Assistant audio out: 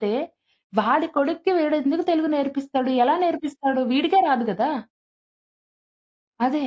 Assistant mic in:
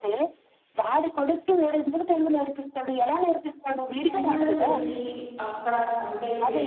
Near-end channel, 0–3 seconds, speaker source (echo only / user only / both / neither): echo only